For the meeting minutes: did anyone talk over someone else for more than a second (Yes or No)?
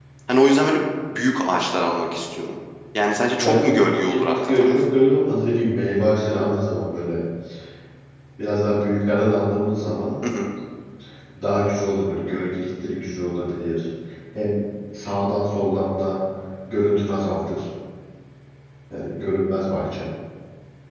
Yes